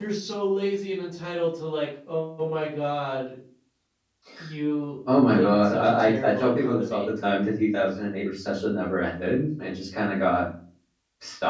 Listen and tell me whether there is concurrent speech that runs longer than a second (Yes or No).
Yes